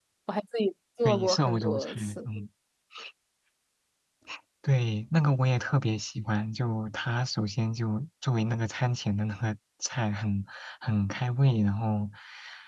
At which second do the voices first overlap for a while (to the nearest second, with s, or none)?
1 s